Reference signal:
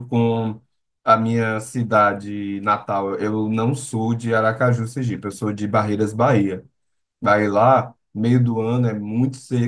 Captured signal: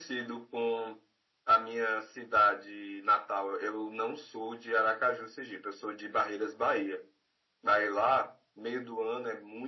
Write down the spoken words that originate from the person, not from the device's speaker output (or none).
none